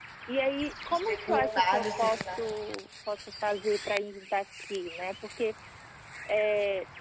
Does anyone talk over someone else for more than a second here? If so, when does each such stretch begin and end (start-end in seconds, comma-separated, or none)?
1.1-2.4